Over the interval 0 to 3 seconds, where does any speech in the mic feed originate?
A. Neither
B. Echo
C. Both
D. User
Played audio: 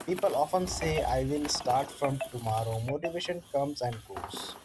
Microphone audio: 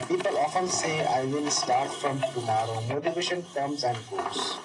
B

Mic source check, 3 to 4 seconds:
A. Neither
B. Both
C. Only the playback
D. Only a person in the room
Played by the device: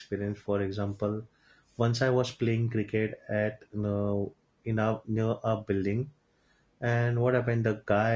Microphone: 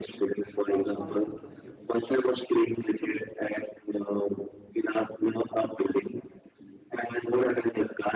C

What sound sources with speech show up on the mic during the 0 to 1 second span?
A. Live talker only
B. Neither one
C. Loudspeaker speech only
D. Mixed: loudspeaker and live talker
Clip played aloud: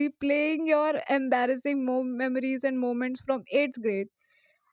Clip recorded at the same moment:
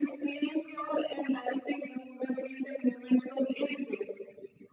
C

